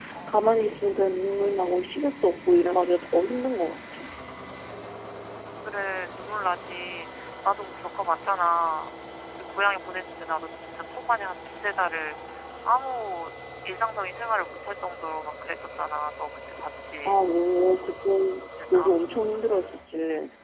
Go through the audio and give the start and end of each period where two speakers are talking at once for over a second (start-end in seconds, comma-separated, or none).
none